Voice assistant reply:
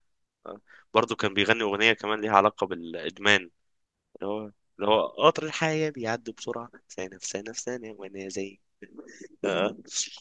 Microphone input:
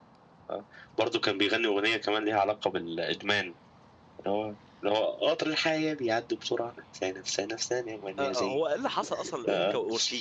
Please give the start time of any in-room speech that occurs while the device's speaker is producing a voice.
8.2 s

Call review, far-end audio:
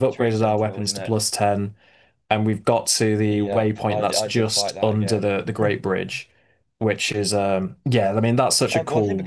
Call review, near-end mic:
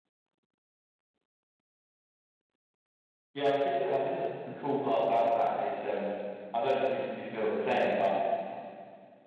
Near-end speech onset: 3.3 s

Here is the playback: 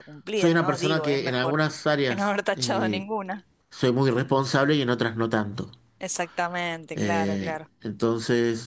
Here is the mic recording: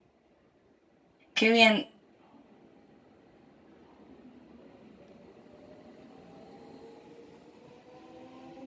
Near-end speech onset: 1.3 s

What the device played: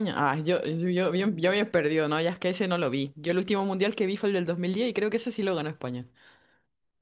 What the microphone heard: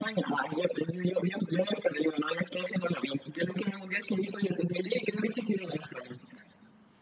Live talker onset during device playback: none

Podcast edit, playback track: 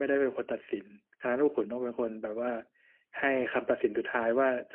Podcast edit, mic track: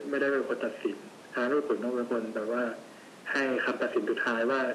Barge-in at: none

